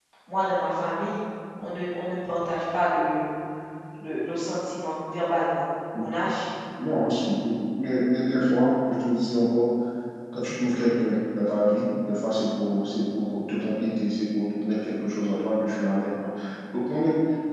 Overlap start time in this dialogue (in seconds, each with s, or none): none